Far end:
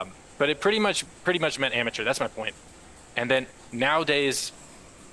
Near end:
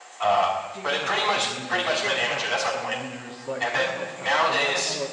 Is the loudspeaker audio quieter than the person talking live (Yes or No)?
No